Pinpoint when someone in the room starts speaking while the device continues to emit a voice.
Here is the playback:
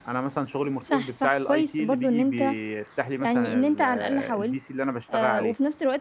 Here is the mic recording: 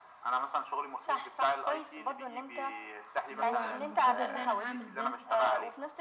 3.3 s

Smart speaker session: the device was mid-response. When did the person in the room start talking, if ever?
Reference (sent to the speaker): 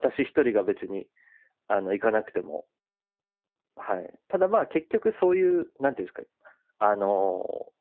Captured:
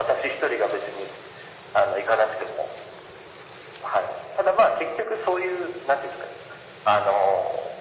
none

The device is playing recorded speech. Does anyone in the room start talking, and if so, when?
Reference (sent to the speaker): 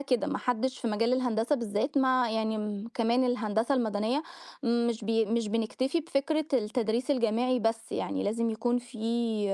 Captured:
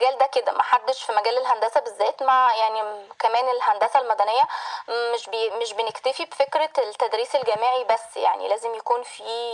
none

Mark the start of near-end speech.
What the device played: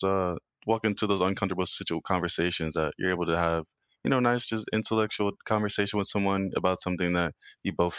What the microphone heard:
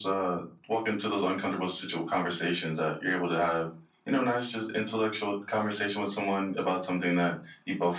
none

